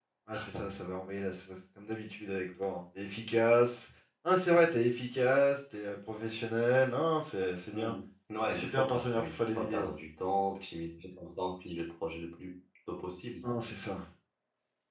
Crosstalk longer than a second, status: present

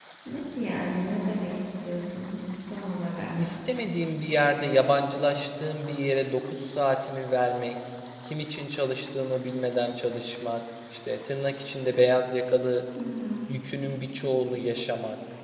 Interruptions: none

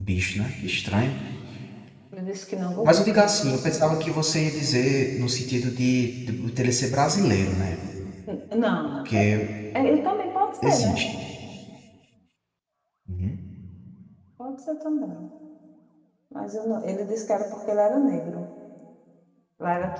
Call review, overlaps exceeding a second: none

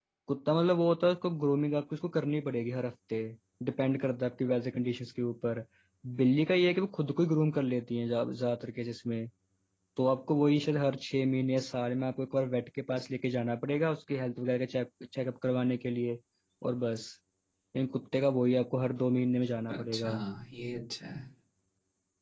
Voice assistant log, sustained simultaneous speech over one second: none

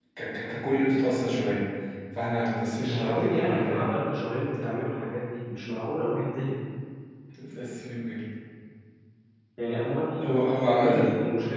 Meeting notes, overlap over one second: present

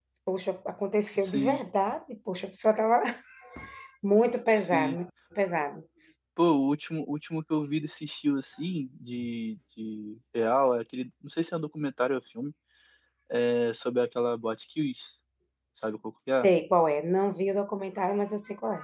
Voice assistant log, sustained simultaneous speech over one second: none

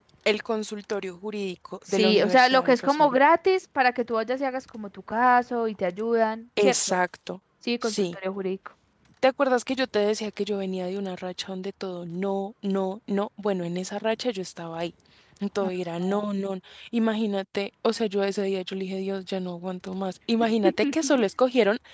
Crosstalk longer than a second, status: present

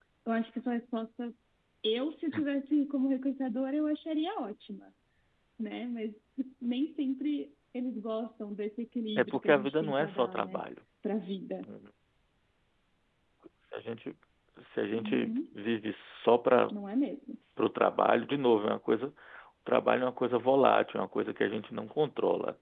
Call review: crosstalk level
present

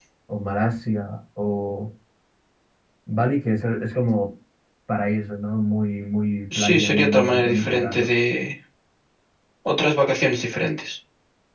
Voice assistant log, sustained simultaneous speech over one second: present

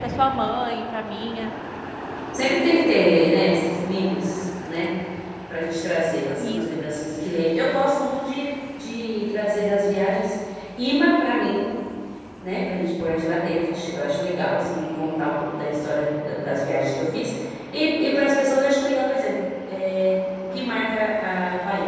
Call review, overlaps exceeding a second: none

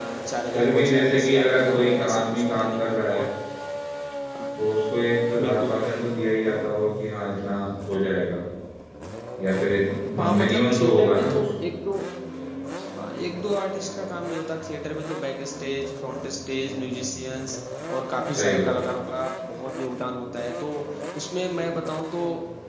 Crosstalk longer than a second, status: present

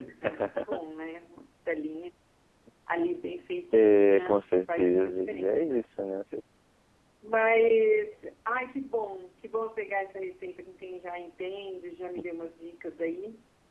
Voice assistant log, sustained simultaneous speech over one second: present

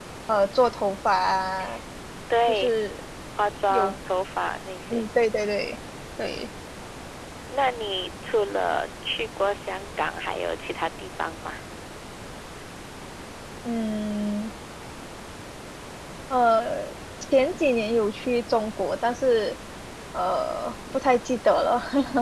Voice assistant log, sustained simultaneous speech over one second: none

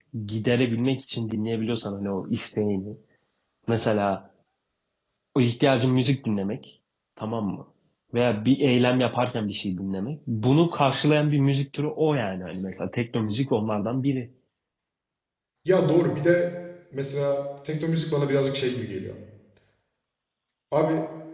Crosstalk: none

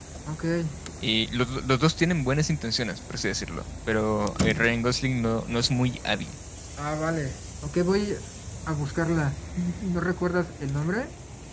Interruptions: none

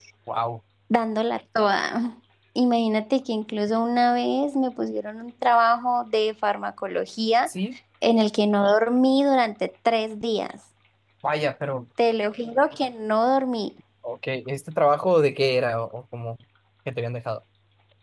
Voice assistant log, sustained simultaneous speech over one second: none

